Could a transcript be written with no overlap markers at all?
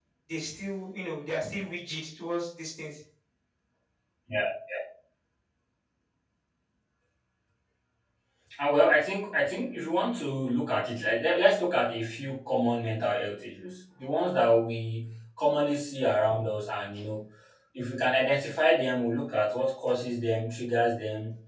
Yes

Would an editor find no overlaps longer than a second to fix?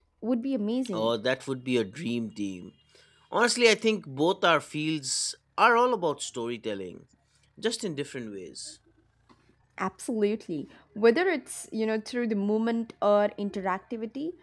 Yes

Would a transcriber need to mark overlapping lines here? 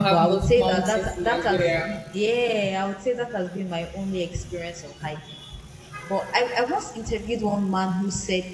Yes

